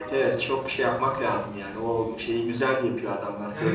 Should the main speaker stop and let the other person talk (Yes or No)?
Yes